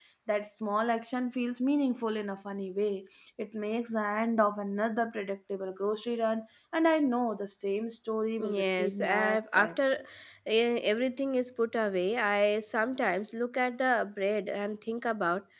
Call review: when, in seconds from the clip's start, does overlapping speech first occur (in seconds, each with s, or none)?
8.4 s